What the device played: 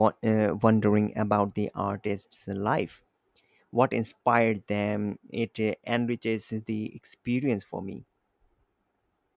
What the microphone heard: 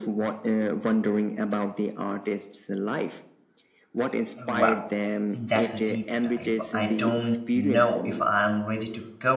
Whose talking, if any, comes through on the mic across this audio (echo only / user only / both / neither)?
both